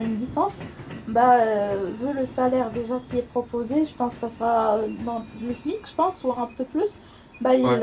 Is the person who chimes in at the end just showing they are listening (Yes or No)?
Yes